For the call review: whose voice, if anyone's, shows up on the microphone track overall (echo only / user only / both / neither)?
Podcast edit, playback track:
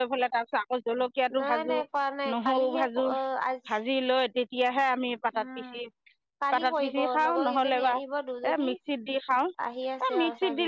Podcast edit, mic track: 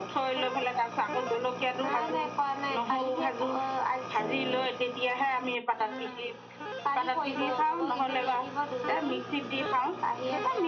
echo only